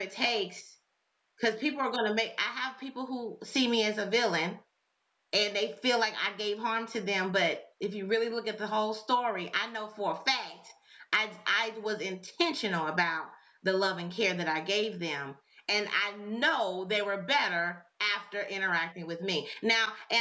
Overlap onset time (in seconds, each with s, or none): none